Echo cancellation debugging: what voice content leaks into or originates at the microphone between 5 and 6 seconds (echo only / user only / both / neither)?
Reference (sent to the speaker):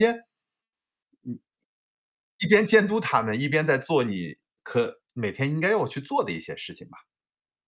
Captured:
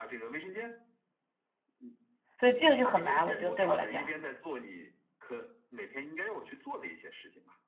echo only